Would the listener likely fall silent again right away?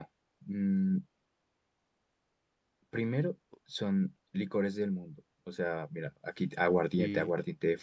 Yes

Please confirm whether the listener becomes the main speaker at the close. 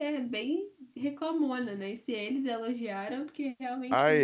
Yes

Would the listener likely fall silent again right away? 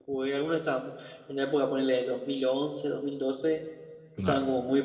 Yes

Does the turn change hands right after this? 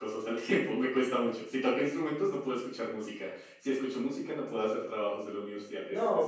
Yes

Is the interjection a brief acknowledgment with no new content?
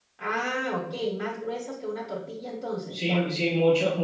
No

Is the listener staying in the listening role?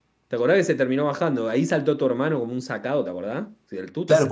No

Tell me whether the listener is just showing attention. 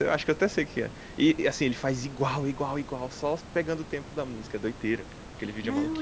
No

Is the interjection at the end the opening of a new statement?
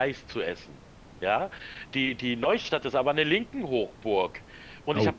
No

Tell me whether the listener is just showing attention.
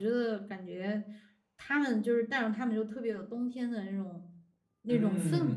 No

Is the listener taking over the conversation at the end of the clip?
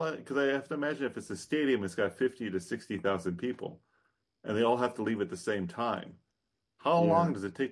No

